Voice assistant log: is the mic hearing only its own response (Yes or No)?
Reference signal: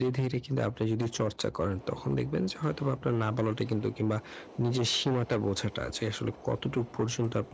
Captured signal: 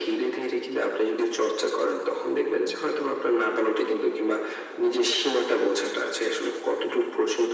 Yes